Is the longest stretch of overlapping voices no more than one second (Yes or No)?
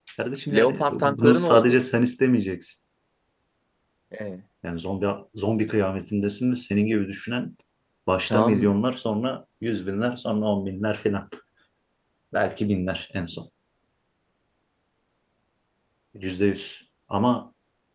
No